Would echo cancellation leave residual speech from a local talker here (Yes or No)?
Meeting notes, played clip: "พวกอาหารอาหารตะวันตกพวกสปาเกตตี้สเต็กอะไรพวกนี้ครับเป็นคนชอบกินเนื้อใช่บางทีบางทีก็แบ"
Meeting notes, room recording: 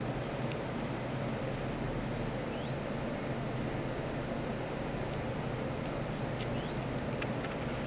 No